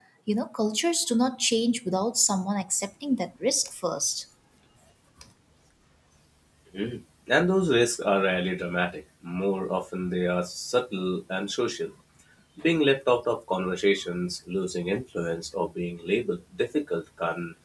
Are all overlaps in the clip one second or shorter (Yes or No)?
Yes